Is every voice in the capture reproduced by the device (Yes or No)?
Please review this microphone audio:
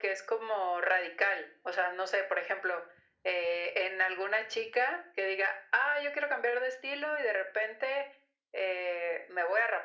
Yes